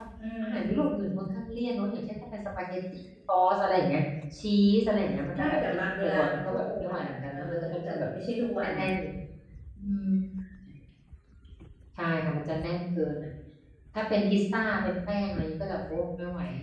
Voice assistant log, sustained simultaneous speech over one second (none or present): present